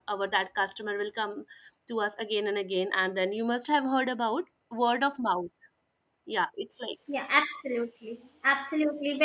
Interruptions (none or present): none